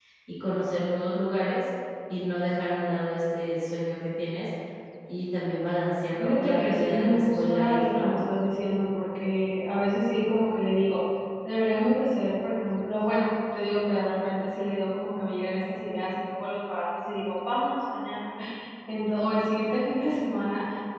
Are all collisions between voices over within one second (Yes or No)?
No